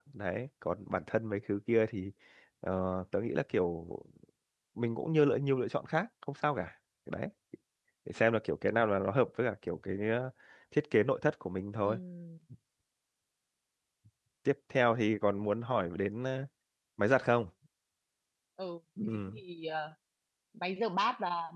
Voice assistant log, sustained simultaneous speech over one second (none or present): none